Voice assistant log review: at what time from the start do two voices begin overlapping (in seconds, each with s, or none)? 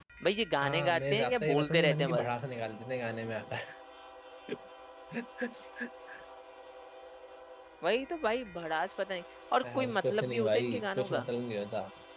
0.6 s